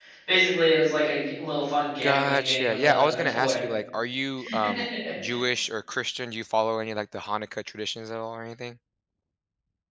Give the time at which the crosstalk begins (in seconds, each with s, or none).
2.0 s